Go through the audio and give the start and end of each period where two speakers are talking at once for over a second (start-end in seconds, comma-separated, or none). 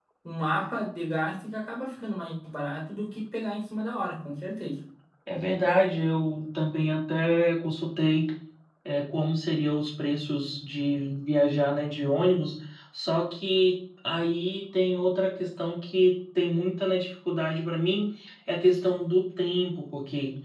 none